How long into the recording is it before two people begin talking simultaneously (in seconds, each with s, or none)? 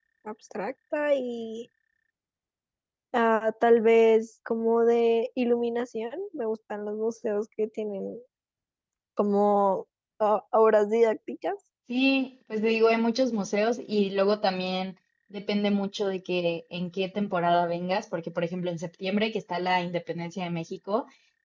none